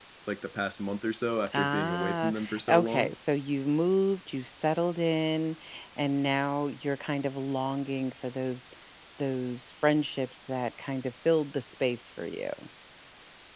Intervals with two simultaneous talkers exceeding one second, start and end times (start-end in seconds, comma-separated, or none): 1.5-3.1